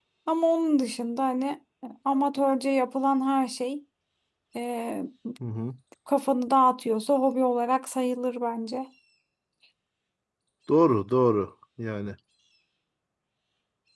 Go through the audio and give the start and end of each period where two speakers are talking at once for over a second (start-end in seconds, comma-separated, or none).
none